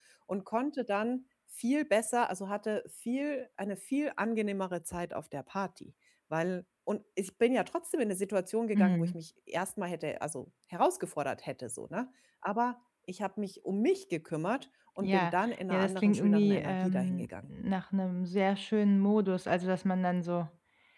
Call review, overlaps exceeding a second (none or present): present